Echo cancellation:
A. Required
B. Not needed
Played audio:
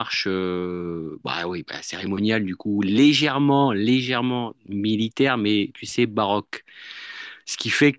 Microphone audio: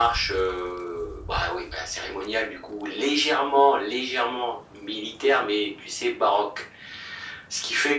A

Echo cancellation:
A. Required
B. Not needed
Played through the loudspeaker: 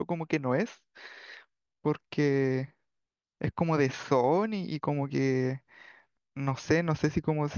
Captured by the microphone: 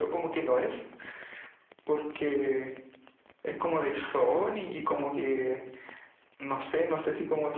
A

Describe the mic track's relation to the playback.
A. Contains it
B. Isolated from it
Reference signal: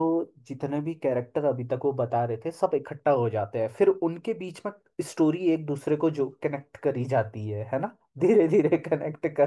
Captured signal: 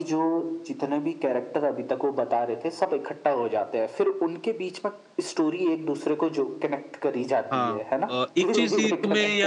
A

